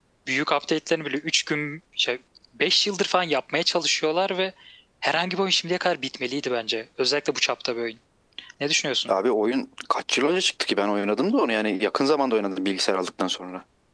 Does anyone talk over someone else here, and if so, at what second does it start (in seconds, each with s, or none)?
none